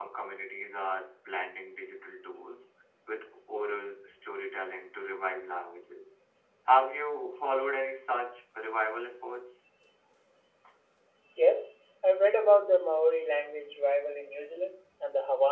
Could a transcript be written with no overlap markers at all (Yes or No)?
Yes